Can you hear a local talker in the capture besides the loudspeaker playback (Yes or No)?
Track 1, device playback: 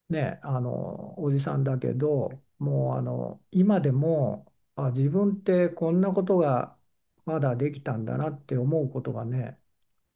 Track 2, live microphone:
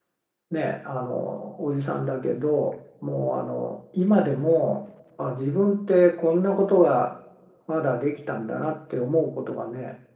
No